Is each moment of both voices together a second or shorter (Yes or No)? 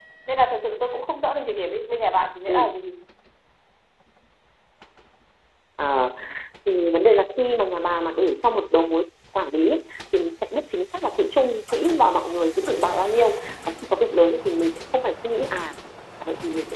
Yes